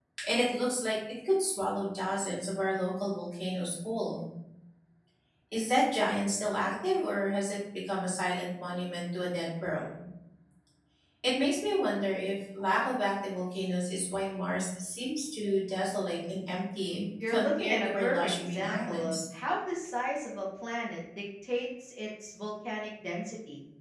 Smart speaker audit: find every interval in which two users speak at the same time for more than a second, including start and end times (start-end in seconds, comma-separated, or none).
17.3-19.2